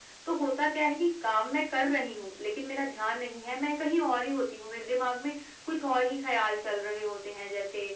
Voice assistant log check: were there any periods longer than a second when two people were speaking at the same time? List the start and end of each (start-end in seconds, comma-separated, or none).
none